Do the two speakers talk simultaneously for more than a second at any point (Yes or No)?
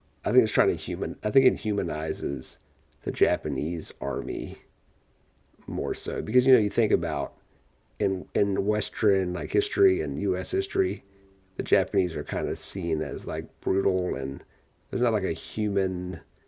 No